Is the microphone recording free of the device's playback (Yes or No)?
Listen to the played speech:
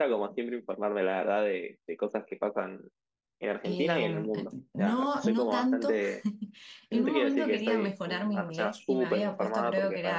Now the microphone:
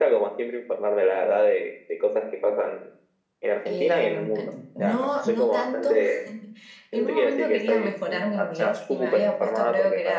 No